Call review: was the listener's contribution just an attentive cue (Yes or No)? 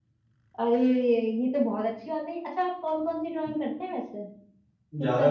No